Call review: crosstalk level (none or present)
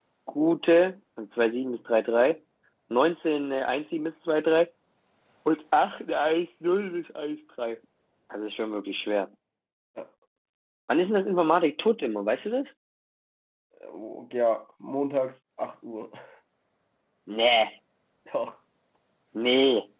none